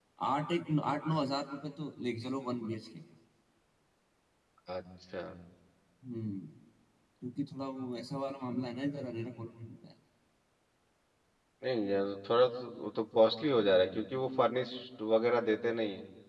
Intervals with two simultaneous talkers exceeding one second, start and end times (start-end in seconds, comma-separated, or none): none